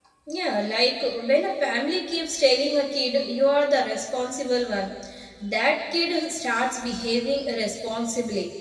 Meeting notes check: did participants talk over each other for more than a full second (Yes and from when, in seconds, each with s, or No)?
No